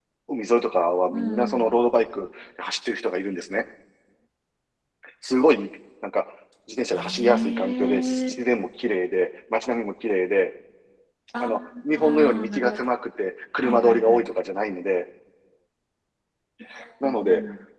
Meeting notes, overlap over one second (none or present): present